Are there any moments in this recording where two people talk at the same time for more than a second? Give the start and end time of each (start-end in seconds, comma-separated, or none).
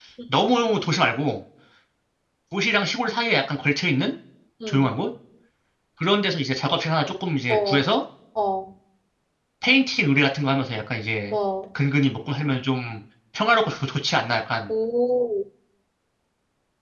none